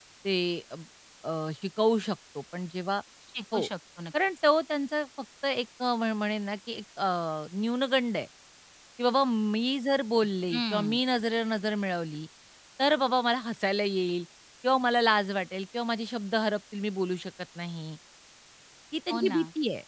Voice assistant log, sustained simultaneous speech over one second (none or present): none